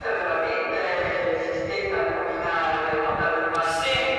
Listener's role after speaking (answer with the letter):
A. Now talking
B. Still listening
B